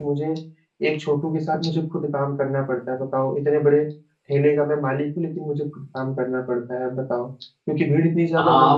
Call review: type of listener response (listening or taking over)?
taking over